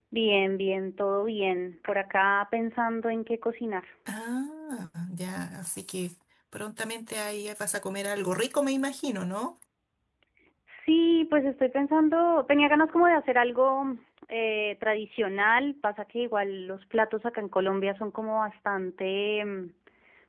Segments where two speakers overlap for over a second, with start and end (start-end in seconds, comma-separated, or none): none